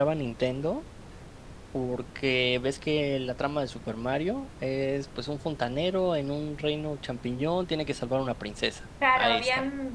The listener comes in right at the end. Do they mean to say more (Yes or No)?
Yes